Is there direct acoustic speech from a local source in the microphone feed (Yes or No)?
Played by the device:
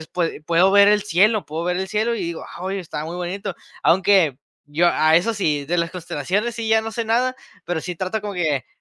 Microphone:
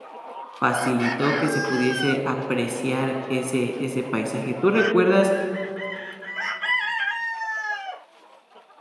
Yes